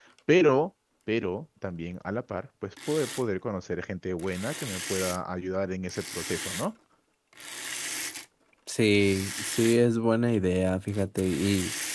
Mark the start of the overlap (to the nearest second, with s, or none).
none